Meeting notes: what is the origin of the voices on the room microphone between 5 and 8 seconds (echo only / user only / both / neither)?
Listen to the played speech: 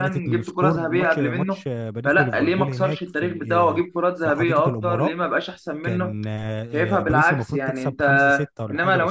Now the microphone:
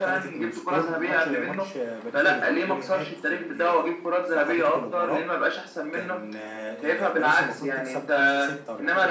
echo only